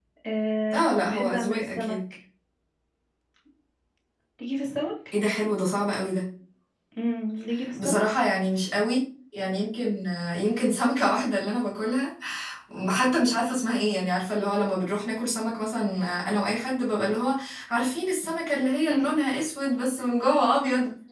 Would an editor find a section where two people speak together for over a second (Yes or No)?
Yes